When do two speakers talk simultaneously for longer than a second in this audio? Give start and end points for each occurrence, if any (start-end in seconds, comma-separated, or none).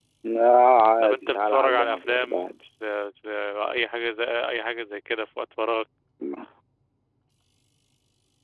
1.0-2.4